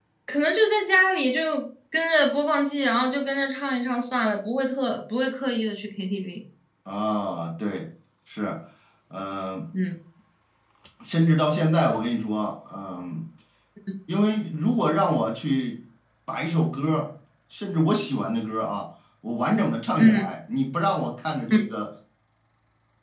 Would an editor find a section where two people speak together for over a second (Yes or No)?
No